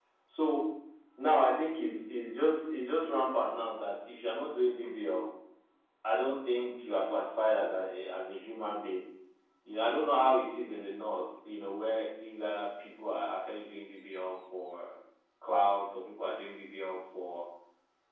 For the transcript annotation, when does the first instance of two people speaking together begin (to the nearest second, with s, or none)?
none